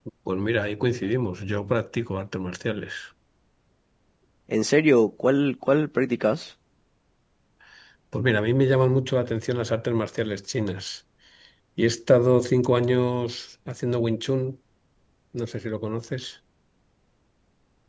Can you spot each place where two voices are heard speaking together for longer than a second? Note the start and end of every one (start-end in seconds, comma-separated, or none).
none